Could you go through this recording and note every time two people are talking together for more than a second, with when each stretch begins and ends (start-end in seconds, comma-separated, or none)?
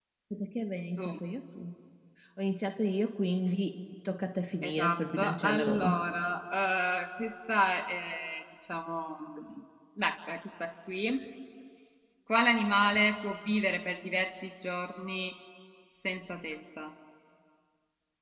4.6-6.0